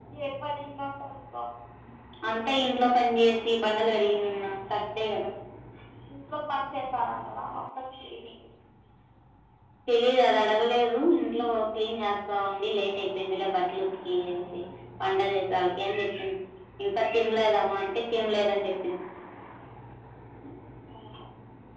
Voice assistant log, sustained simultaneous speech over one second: none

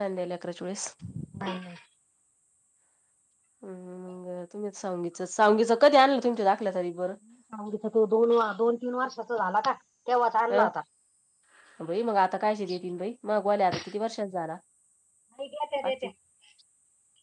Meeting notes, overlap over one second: none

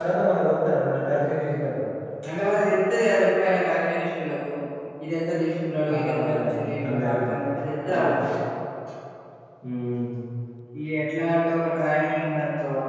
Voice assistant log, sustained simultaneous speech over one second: present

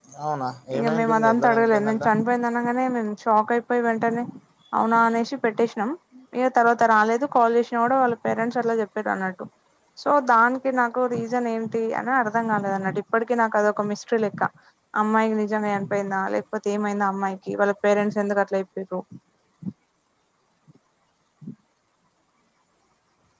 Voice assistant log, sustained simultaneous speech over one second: present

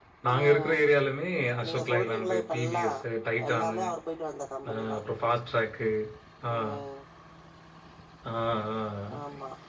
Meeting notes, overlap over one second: present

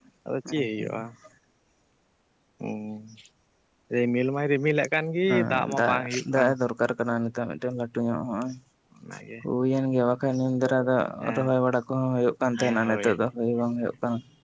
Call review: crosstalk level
present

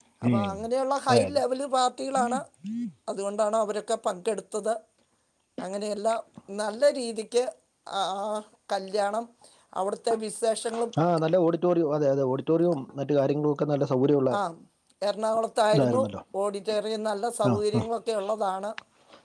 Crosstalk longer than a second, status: none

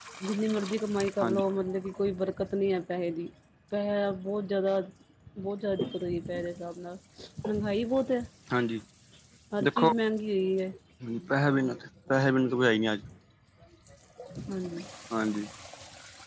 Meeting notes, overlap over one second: none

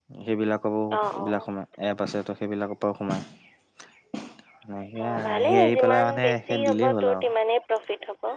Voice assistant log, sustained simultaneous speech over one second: present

